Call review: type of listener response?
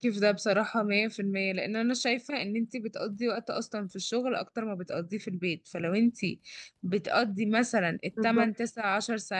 listening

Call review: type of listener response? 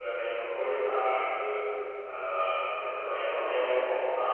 listening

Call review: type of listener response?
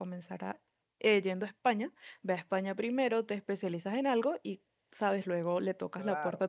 taking over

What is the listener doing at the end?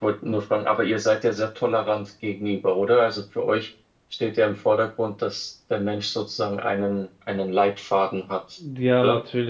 taking over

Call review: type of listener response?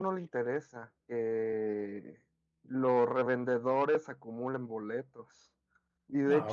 listening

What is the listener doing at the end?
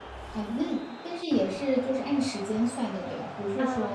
taking over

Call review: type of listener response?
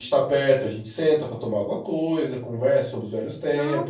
taking over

